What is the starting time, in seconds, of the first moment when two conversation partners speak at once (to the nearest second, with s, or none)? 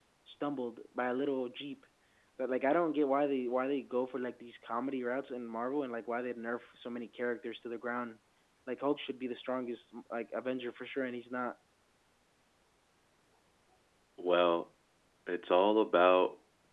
none